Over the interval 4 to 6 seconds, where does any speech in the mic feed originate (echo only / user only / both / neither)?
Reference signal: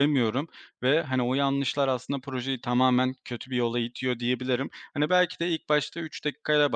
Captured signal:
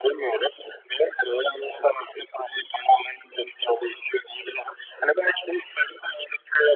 echo only